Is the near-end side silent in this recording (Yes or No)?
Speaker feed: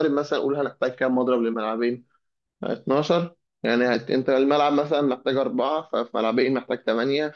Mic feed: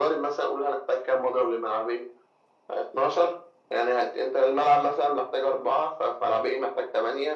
Yes